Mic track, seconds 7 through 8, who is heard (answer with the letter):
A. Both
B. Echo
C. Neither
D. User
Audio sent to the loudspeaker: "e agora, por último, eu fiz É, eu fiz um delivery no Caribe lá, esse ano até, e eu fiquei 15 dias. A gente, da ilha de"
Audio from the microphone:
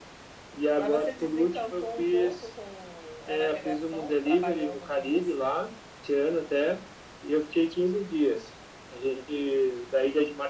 B